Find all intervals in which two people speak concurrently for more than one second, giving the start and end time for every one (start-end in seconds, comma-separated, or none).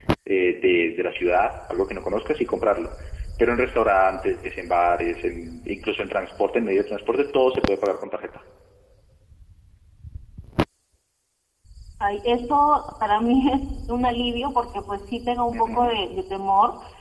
none